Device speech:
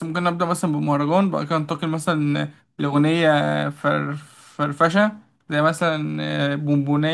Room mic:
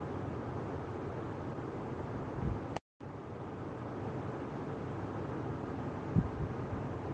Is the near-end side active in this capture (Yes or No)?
No